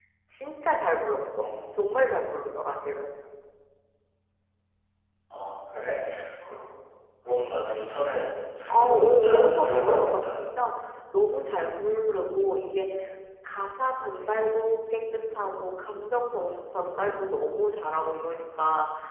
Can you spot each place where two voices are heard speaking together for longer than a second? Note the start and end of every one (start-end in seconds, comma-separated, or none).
8.7-10.5